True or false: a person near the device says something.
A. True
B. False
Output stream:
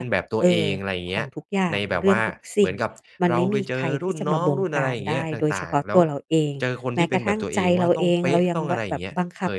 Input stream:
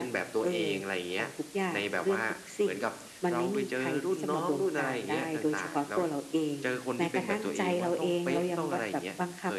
B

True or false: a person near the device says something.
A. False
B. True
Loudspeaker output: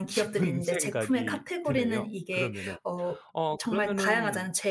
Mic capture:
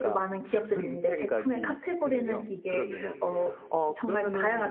B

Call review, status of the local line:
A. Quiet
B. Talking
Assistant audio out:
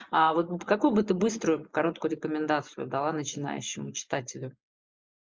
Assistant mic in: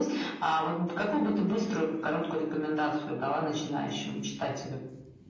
A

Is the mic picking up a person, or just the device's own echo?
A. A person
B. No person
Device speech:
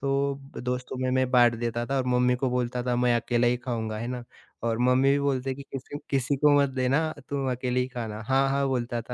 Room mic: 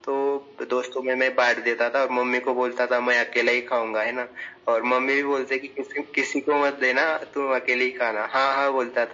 B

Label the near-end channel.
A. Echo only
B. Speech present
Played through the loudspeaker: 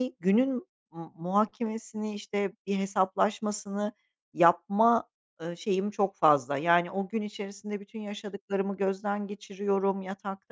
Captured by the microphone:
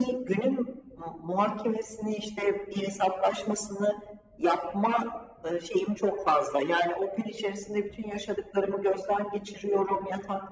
A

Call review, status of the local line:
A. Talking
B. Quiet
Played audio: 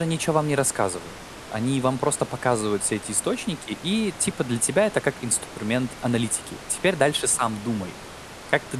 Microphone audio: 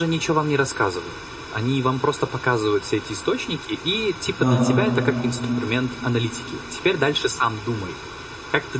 A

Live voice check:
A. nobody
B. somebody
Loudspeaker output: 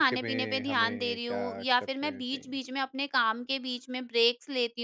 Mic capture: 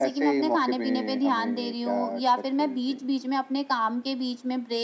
A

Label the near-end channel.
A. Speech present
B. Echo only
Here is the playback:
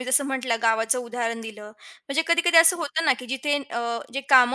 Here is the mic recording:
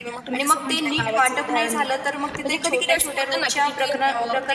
A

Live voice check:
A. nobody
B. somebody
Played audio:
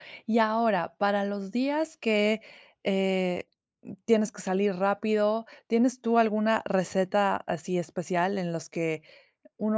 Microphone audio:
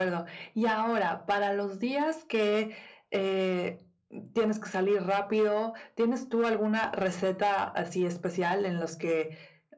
A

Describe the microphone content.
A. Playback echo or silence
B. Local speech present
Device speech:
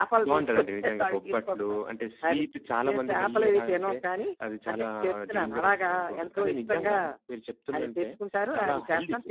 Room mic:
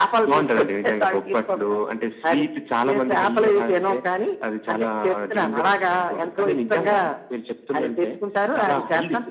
A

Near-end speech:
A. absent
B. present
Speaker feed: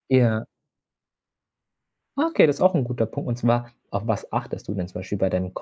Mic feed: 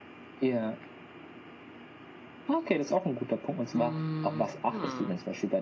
B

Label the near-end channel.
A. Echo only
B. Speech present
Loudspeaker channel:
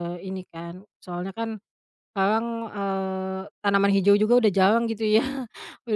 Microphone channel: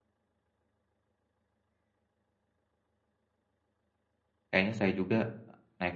B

